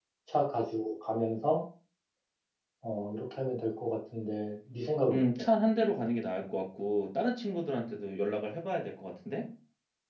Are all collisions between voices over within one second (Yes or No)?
Yes